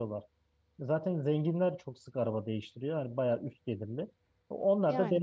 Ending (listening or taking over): listening